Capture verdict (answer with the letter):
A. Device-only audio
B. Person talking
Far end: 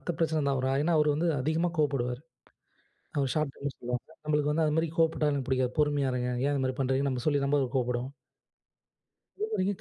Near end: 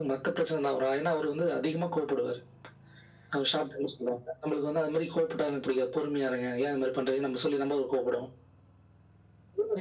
A